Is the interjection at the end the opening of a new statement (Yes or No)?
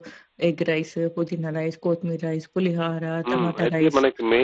Yes